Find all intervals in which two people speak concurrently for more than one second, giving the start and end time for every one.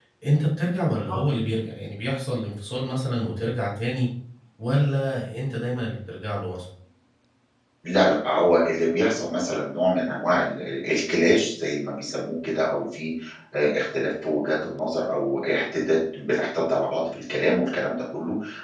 none

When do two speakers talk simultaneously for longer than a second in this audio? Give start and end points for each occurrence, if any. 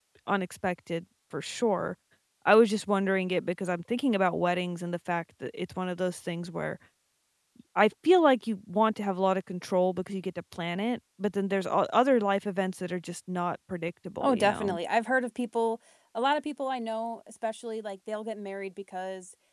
none

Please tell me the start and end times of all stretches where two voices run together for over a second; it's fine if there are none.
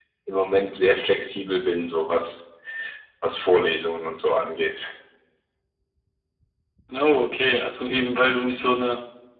none

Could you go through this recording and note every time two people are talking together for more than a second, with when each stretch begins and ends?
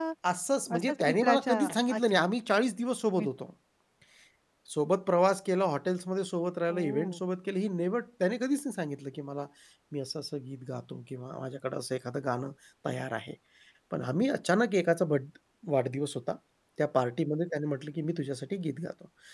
0.8-2.2

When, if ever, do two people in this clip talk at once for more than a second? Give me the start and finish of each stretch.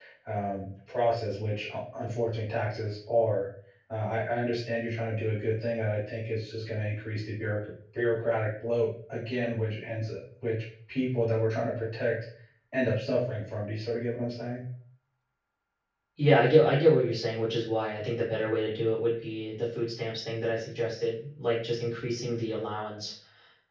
none

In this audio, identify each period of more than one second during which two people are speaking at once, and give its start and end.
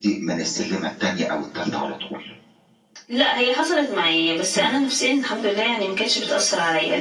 none

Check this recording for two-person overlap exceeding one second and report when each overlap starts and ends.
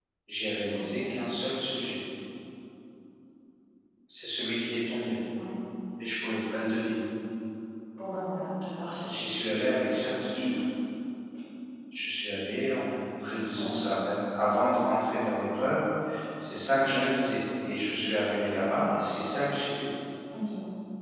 none

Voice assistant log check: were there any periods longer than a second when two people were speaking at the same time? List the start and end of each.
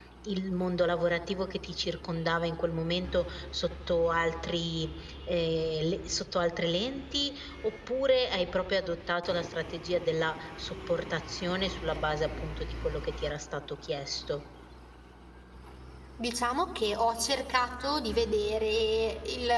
none

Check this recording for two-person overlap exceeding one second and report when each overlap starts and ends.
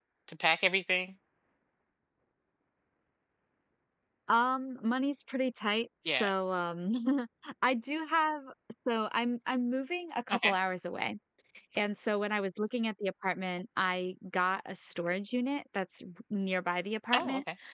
none

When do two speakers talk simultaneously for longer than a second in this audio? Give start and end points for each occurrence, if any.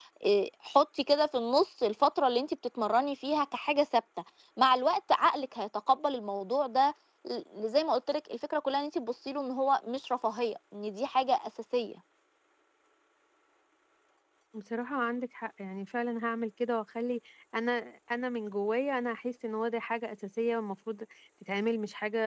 none

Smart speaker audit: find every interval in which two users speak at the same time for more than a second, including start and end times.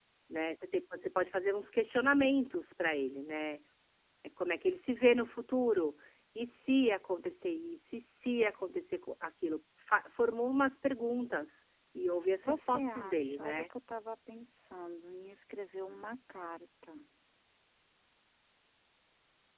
12.4-13.6

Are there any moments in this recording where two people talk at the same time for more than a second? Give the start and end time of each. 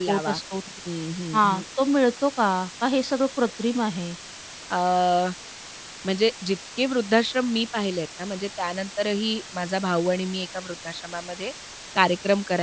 none

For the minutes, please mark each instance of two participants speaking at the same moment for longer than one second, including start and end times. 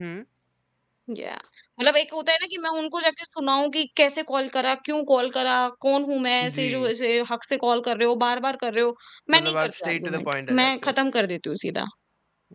9.3-10.9

